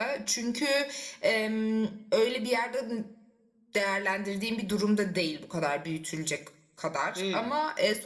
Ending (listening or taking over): listening